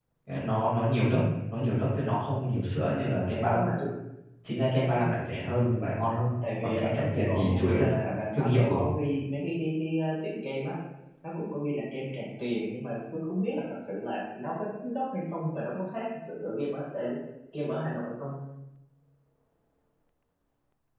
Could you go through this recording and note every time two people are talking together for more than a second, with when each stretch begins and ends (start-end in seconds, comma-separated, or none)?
6.6-7.8